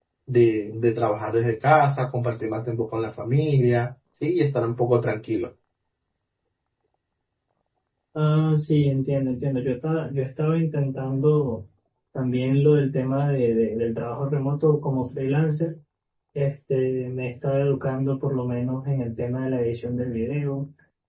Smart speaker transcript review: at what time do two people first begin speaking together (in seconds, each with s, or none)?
none